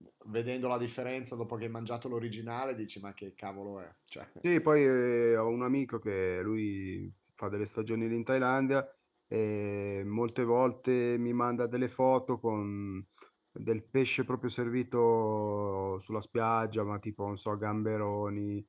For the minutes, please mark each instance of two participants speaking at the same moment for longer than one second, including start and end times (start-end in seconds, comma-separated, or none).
none